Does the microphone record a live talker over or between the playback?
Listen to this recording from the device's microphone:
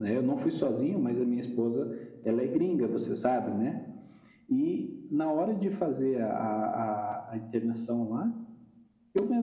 No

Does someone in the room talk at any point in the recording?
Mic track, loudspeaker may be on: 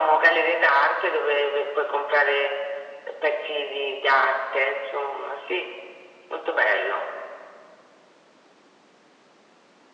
No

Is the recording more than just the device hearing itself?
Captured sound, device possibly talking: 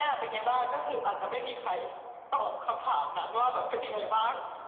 No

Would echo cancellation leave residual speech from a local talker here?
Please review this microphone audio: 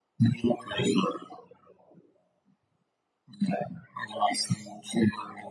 No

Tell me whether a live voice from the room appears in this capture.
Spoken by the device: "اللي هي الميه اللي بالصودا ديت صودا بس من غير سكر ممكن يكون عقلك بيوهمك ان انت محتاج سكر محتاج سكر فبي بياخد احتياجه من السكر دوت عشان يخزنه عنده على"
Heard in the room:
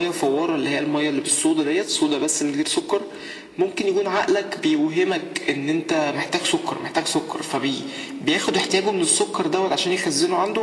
No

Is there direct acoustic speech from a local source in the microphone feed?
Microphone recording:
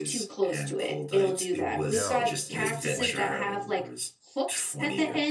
Yes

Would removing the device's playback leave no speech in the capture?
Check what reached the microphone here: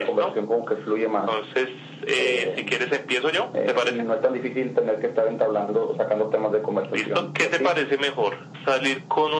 Yes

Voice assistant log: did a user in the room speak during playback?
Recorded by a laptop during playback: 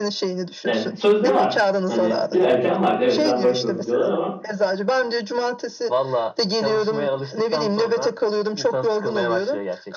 Yes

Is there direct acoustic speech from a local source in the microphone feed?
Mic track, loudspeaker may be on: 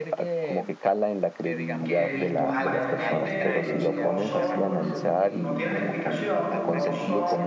Yes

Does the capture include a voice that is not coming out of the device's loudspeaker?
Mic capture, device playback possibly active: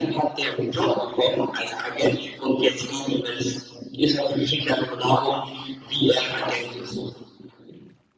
No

